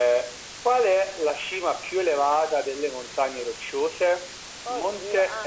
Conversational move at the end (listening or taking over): listening